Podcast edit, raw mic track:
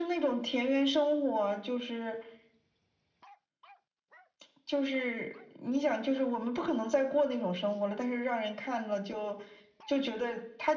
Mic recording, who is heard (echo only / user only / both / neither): echo only